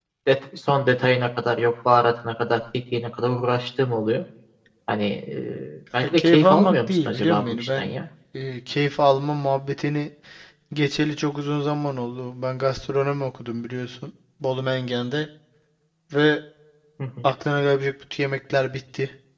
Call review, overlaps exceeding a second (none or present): present